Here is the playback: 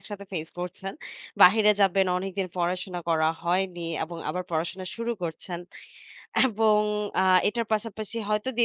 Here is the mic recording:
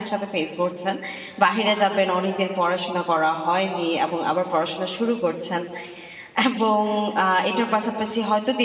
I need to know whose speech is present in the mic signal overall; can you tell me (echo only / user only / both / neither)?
echo only